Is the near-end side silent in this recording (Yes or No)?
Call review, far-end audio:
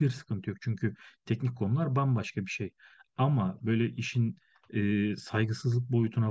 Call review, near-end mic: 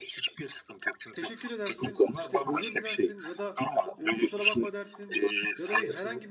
No